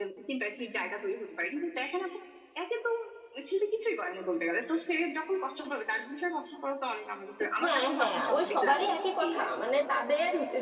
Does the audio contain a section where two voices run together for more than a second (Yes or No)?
Yes